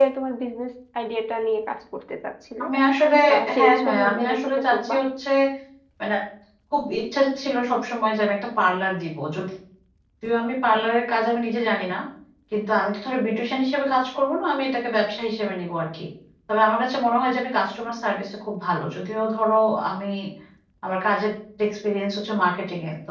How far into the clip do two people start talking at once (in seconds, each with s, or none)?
3.6 s